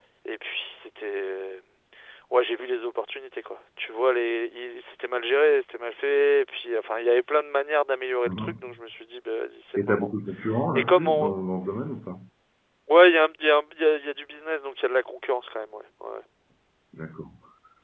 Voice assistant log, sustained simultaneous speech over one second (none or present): none